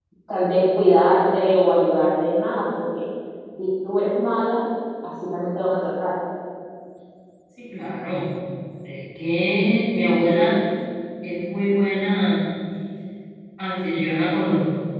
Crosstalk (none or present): none